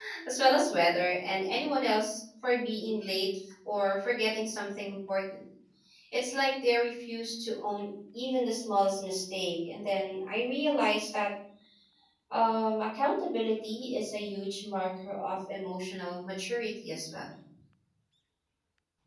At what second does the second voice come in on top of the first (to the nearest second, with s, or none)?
none